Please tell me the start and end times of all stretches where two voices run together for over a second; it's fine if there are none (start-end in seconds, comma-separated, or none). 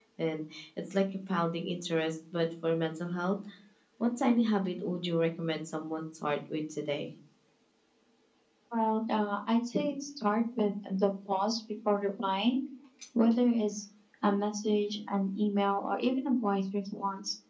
none